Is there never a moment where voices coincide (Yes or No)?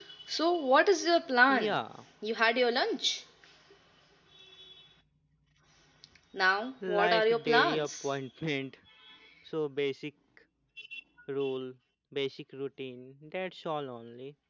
No